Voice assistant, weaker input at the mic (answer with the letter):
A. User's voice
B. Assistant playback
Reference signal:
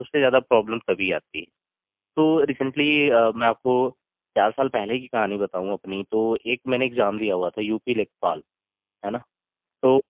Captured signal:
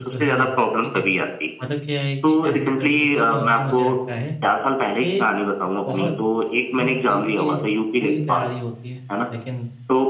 A